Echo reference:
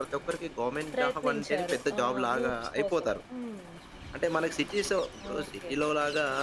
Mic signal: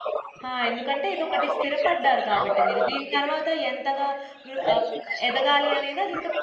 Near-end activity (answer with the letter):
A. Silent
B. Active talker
B